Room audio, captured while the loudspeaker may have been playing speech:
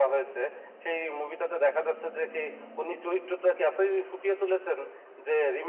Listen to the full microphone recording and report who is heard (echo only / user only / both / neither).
echo only